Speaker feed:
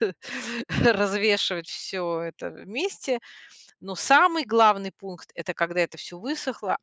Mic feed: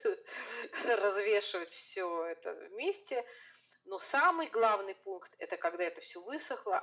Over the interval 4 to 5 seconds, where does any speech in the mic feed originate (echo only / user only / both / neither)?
echo only